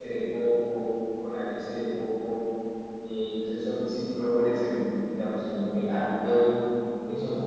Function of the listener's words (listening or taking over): listening